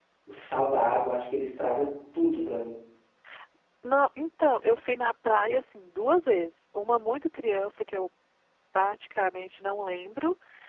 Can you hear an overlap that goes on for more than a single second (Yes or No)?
No